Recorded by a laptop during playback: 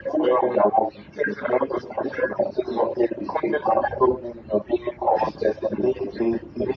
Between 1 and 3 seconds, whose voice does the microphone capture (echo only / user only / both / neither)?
echo only